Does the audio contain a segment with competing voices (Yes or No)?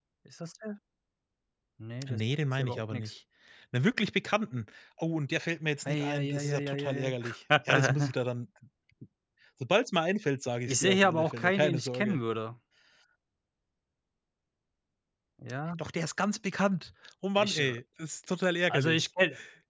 Yes